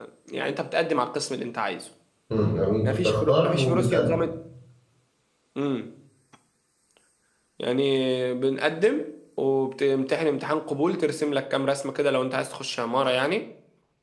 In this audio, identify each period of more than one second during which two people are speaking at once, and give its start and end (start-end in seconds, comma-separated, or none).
2.9-4.1